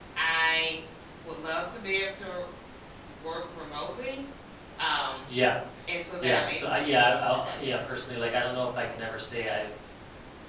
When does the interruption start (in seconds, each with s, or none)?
6.2 s